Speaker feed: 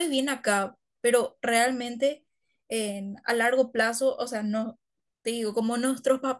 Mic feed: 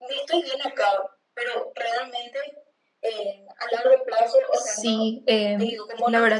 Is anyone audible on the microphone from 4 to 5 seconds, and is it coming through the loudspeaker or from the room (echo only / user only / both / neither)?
both